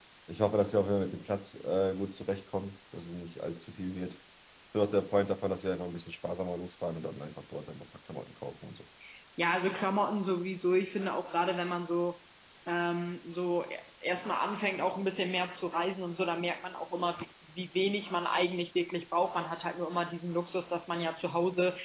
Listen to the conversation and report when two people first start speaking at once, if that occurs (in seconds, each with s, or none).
none